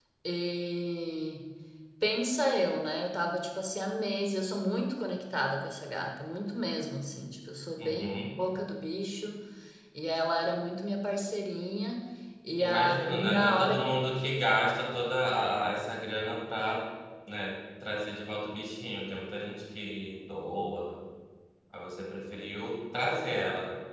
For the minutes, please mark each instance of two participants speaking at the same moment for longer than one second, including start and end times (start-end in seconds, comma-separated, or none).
12.6-13.8